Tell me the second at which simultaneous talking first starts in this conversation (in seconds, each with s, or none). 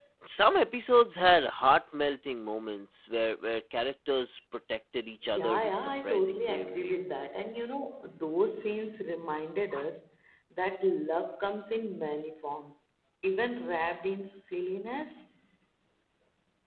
5.3 s